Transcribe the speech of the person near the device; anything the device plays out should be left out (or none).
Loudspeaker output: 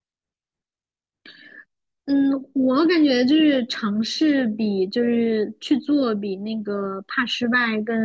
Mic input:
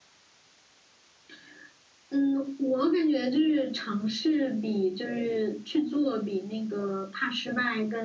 none